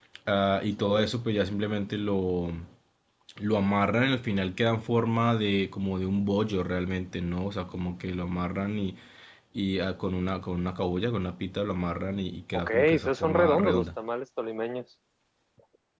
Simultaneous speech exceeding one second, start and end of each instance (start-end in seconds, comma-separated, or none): 12.5-13.8